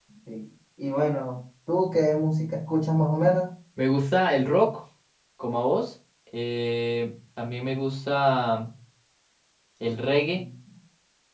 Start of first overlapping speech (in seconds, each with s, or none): none